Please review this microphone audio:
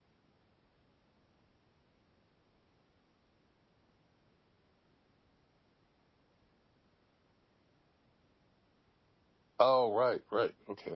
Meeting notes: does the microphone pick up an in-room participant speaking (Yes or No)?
Yes